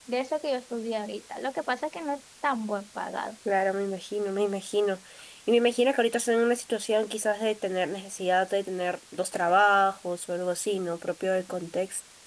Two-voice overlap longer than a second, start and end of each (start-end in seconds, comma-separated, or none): none